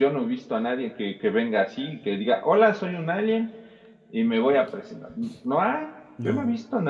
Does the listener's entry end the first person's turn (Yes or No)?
Yes